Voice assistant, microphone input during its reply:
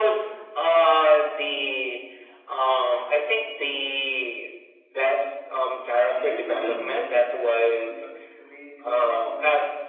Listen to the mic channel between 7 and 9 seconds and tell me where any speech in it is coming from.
both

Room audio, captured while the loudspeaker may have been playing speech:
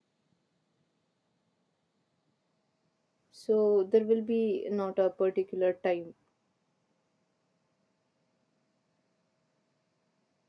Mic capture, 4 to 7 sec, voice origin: user only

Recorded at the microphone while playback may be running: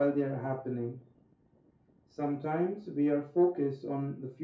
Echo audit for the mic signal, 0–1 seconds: echo only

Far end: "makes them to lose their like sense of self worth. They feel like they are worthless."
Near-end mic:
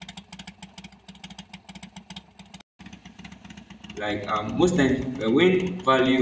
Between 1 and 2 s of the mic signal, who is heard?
neither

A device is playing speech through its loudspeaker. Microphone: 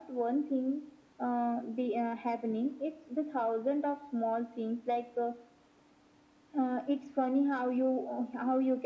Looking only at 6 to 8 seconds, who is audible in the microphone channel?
echo only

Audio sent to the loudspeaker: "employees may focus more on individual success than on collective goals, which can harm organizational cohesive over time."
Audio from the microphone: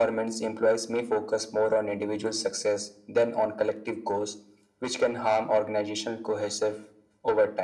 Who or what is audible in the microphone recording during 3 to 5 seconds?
echo only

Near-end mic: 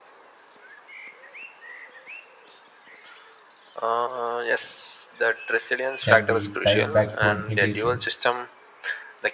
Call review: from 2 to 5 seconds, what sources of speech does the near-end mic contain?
echo only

